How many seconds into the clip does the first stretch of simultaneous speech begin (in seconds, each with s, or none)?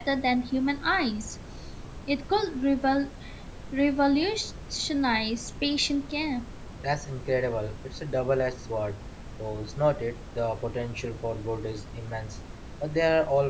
none